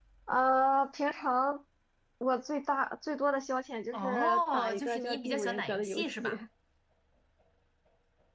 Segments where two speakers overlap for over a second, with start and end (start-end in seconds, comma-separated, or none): 3.9-6.3